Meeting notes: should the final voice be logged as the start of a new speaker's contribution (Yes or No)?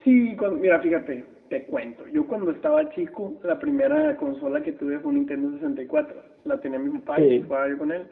No